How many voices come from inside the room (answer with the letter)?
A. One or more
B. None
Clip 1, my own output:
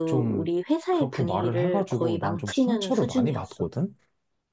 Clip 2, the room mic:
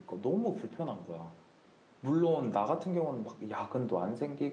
A